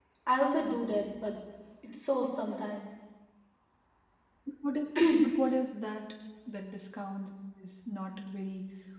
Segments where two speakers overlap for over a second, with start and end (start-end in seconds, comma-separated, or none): none